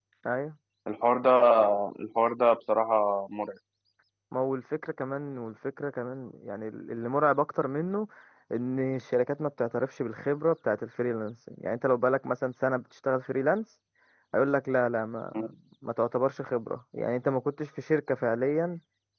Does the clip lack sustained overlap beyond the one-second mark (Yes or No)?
Yes